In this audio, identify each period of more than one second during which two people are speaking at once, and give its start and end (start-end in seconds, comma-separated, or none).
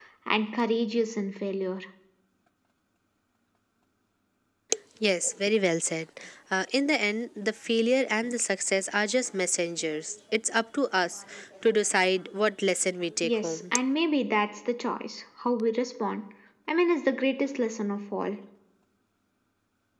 none